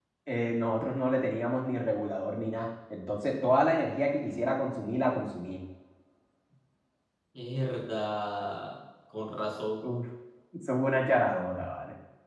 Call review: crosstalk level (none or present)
none